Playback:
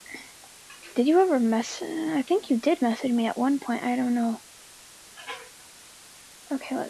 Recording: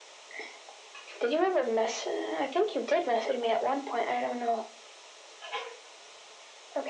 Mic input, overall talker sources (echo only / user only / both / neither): echo only